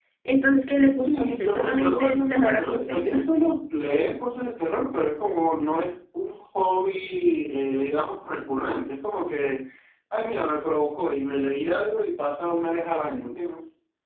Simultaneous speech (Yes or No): Yes